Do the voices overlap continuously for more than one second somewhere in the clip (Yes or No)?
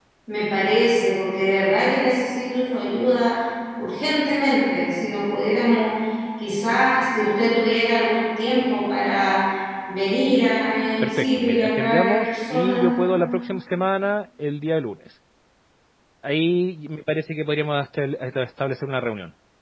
Yes